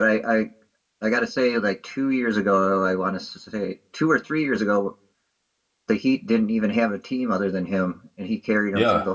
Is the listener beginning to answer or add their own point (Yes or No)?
Yes